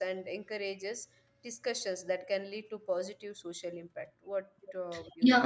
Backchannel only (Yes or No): No